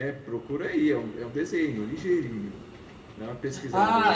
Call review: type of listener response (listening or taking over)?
taking over